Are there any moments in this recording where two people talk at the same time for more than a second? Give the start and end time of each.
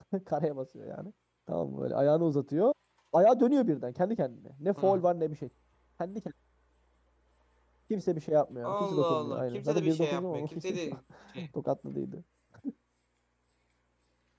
8.6-10.8

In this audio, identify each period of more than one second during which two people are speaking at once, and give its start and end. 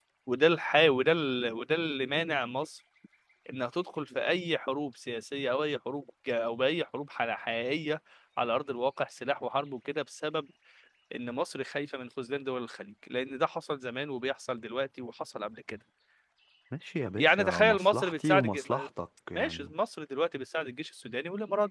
17.2-18.9

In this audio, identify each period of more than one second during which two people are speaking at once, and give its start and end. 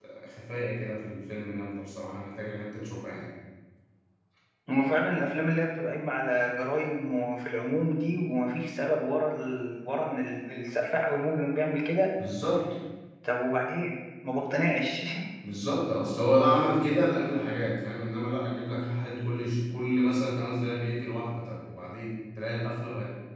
none

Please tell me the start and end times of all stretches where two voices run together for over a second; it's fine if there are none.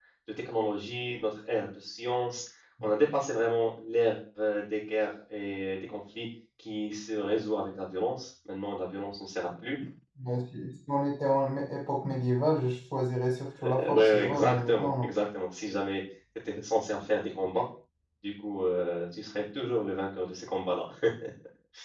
13.6-15.1

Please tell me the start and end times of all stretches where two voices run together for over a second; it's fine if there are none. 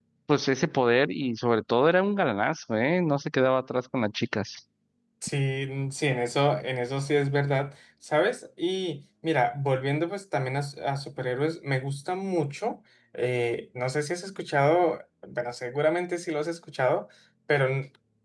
none

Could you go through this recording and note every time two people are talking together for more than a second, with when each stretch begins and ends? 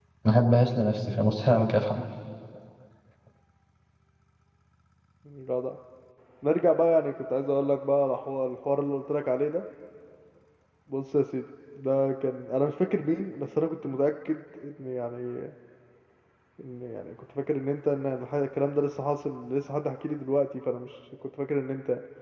none

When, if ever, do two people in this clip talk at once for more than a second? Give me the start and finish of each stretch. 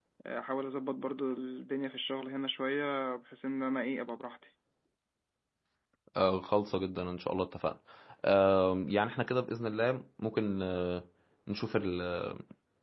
none

